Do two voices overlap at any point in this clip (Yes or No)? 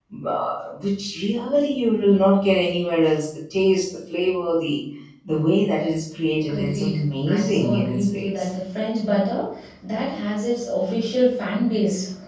Yes